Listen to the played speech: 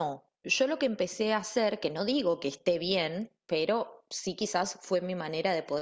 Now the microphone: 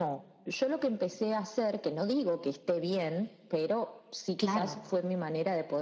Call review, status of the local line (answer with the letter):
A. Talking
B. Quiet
A